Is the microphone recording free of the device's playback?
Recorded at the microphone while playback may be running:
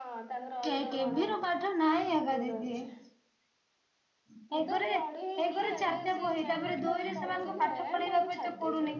No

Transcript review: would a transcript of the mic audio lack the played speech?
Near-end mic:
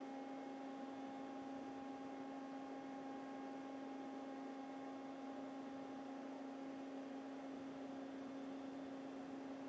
Yes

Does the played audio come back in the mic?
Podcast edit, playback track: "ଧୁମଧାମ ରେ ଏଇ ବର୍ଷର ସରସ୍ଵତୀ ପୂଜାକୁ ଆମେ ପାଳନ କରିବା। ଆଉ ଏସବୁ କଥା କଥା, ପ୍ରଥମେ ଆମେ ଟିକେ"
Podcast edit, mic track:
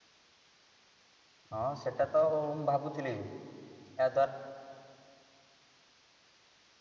No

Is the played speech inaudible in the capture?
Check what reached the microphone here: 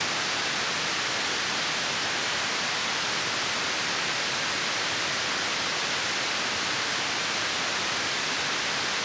Yes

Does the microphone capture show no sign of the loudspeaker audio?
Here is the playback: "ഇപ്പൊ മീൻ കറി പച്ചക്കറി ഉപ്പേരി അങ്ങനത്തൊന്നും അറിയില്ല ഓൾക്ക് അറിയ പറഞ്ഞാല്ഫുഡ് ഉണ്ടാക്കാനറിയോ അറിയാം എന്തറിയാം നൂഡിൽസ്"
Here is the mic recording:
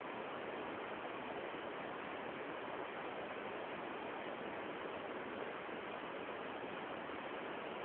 Yes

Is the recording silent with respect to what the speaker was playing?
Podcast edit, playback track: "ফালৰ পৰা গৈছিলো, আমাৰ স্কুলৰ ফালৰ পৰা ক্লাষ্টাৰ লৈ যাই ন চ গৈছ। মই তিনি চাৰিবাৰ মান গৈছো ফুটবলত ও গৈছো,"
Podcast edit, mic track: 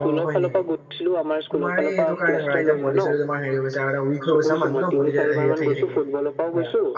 No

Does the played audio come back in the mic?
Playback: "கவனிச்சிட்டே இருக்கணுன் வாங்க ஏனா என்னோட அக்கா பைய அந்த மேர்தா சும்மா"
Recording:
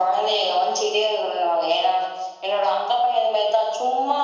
Yes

